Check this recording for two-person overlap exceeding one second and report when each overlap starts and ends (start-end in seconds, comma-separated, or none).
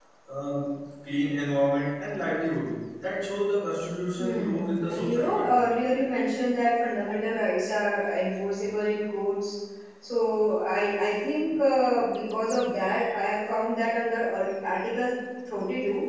4.2-5.5